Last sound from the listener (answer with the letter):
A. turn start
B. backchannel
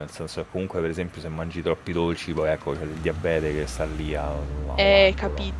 A